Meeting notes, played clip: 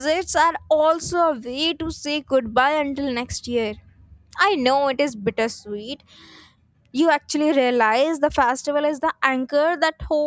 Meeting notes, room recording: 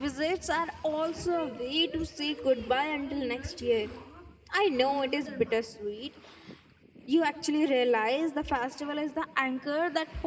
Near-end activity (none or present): present